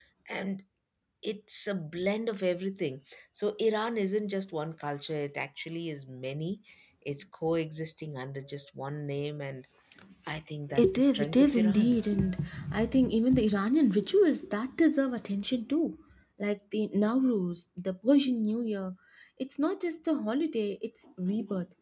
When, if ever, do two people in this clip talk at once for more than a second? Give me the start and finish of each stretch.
10.8-12.0

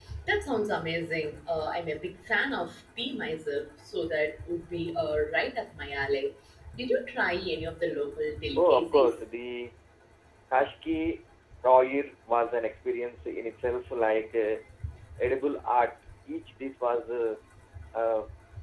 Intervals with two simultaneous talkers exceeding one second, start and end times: none

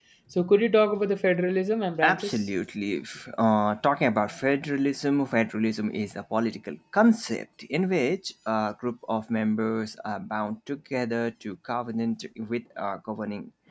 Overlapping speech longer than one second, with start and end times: none

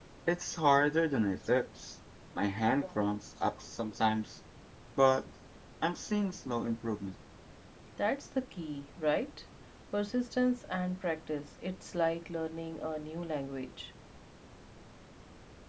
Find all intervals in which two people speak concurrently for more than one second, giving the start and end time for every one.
none

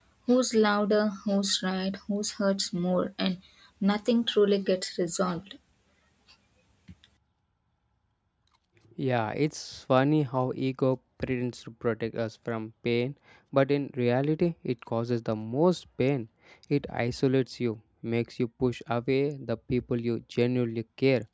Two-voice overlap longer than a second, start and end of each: none

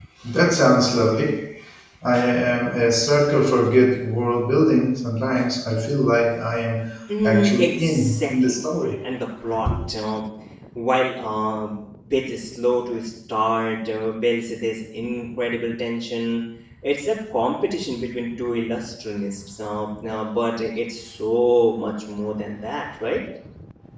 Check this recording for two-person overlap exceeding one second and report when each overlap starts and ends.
7.2-8.6

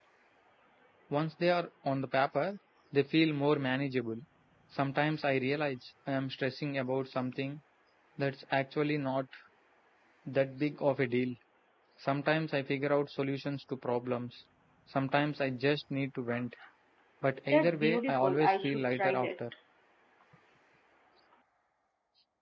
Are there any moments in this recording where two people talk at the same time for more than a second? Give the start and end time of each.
17.5-19.3

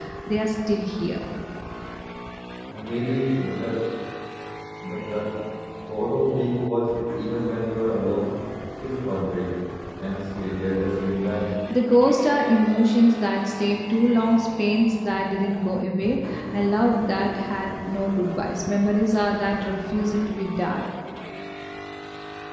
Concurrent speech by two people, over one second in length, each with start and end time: none

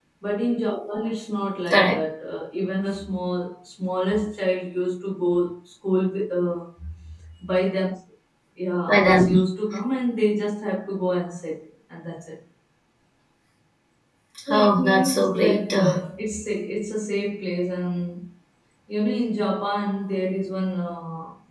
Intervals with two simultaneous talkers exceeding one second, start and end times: 14.5-15.9

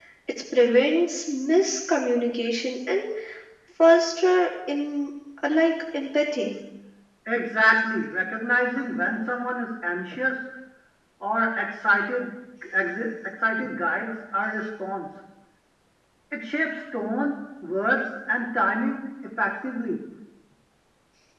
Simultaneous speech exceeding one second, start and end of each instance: none

